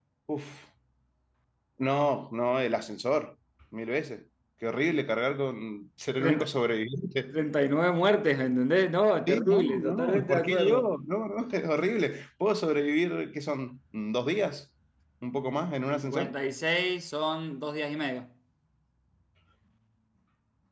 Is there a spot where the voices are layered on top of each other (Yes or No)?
Yes